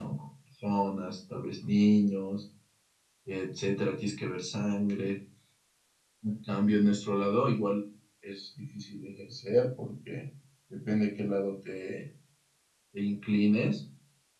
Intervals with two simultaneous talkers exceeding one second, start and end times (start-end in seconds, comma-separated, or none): none